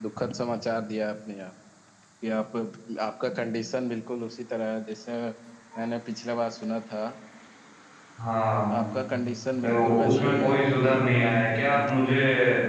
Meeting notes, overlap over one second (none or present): present